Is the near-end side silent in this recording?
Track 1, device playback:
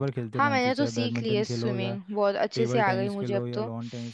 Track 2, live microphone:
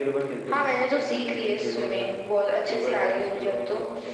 Yes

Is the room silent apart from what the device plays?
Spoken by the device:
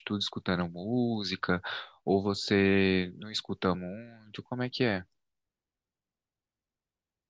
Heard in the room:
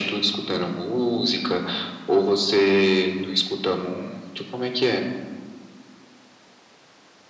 Yes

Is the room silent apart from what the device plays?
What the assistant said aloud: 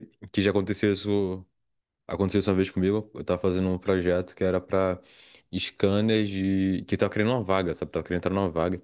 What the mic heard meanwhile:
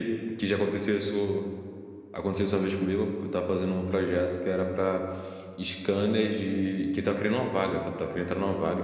Yes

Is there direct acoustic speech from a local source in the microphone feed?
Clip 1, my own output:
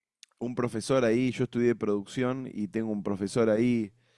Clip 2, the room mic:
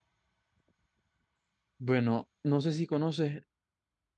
Yes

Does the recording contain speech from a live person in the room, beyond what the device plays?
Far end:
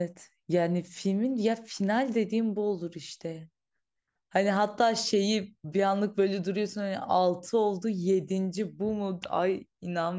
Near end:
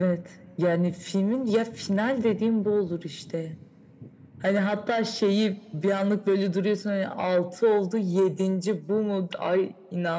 No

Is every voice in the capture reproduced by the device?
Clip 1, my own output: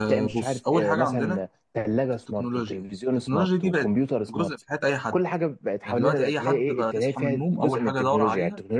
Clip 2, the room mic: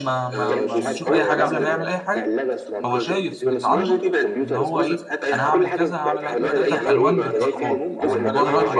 No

